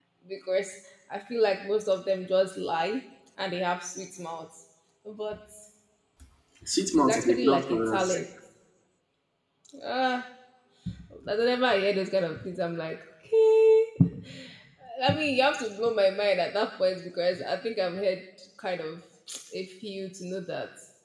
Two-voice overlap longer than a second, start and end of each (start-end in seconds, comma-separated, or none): 7.0-8.2